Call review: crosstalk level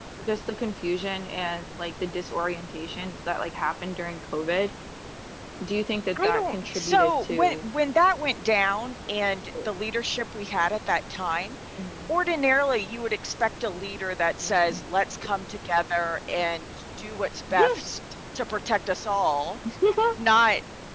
present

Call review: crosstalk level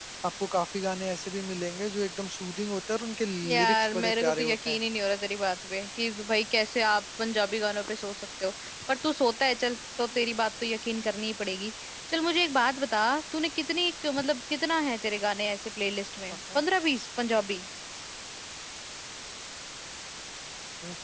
present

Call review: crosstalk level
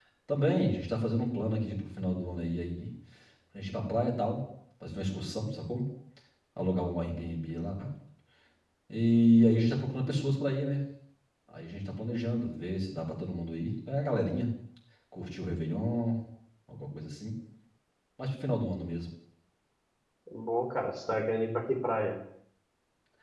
none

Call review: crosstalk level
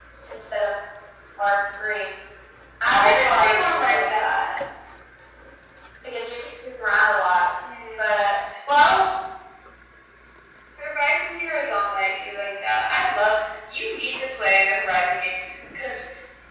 present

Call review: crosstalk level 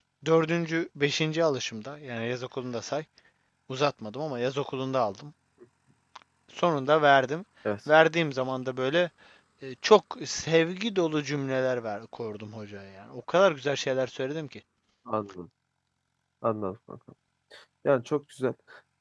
none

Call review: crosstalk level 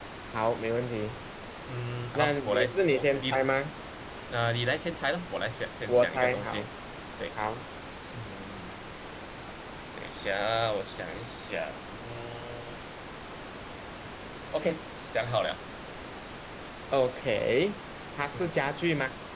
present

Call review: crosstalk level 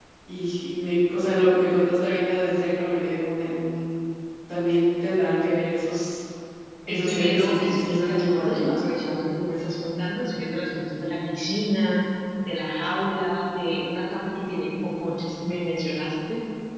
present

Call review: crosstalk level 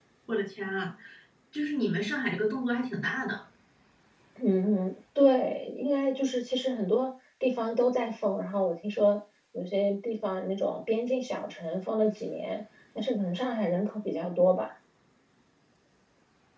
none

